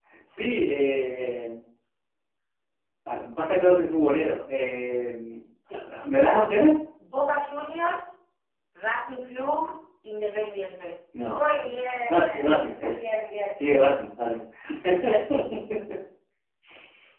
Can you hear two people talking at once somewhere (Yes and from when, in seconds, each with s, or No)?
Yes, from 11.3 s